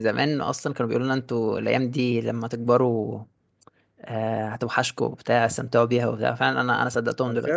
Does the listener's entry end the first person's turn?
Yes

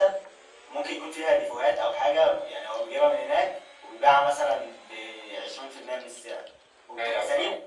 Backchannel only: Yes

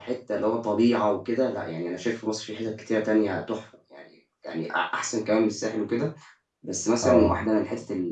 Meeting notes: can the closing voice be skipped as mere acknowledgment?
Yes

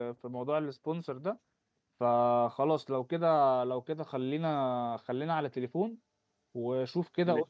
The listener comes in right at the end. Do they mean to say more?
No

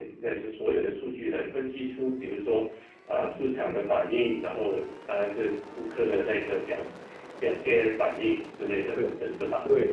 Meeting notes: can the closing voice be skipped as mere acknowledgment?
No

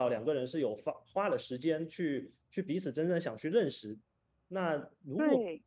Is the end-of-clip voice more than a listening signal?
No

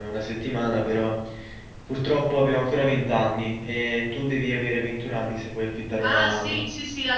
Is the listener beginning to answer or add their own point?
Yes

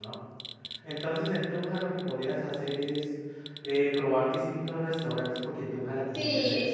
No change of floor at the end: No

